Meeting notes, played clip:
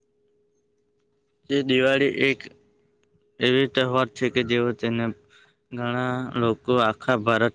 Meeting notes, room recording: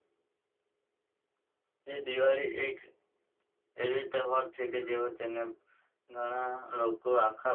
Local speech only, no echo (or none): none